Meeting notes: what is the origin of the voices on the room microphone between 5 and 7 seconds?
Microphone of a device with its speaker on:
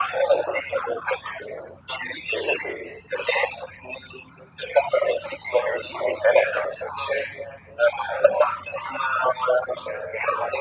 echo only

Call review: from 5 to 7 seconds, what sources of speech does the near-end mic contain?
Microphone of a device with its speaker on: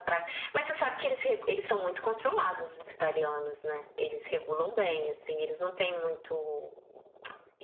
echo only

